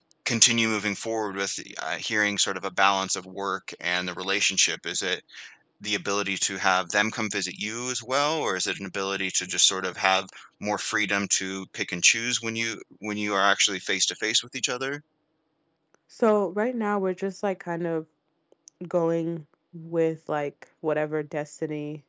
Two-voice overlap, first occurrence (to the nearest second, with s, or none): none